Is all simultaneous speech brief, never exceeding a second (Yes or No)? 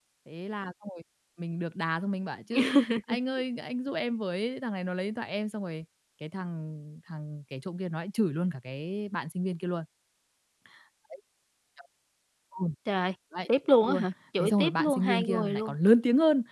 No